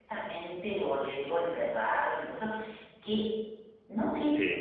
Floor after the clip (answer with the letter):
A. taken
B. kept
B